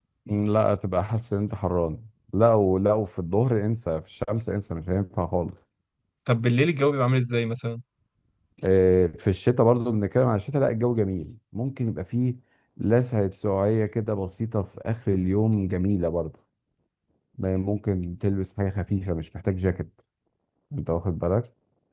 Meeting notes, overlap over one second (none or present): none